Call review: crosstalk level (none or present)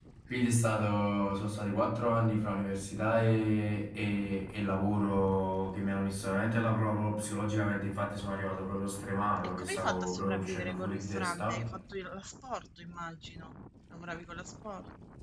present